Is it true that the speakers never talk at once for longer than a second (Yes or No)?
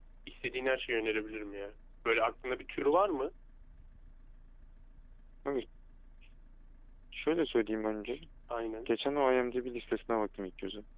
Yes